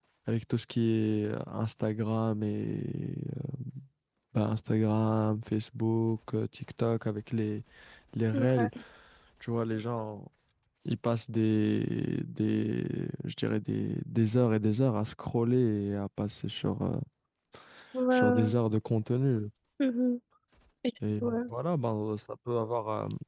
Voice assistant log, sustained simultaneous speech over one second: none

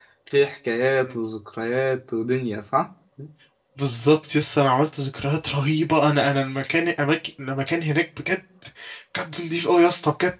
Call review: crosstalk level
none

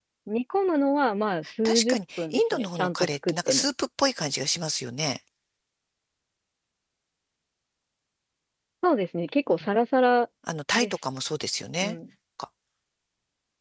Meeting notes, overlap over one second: present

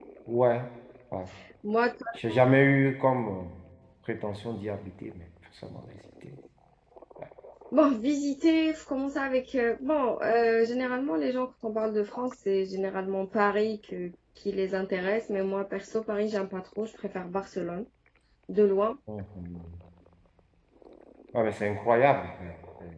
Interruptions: none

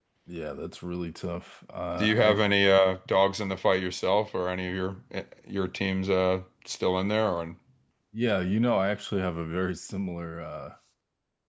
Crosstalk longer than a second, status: none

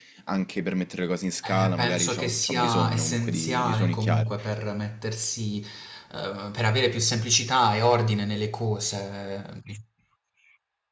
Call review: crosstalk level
present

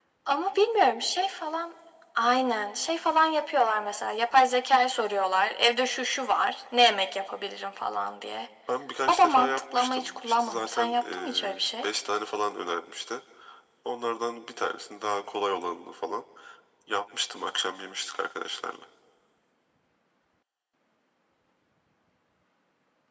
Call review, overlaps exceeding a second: present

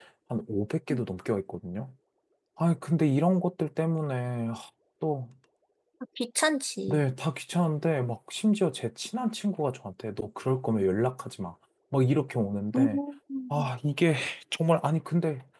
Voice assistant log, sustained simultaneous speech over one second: none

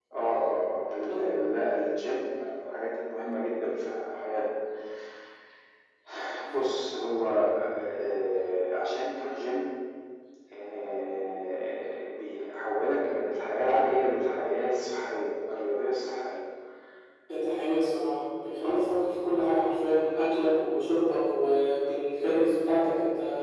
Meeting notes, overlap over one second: none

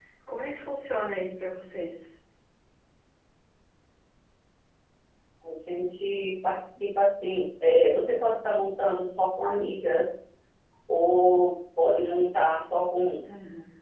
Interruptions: none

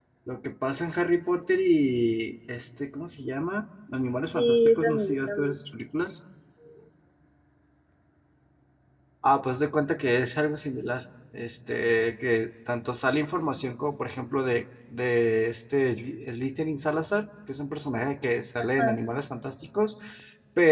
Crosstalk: present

